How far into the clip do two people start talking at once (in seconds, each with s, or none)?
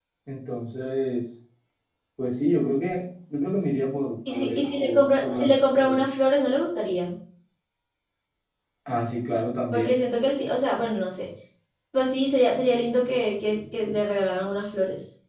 4.3 s